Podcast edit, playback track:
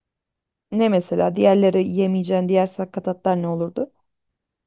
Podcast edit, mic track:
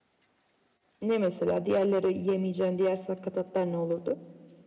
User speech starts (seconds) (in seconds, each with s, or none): none